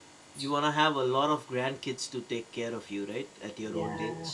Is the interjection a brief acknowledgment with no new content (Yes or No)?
No